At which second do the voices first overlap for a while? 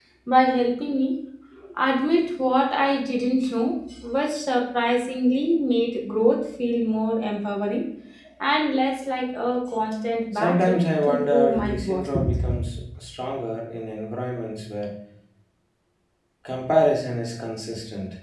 10.3 s

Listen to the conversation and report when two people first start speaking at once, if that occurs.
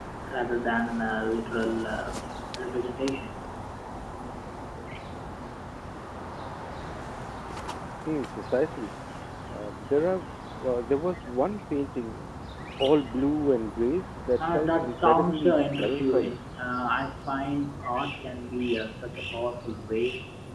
14.4 s

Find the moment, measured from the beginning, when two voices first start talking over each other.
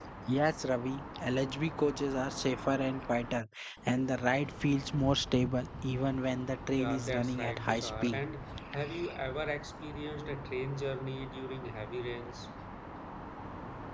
6.8 s

